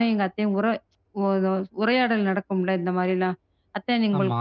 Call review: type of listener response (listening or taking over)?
listening